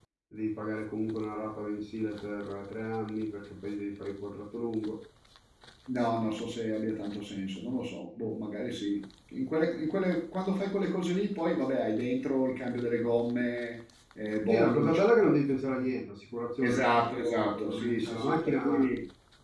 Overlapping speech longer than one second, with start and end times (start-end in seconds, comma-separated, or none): 14.5-15.9, 16.6-18.8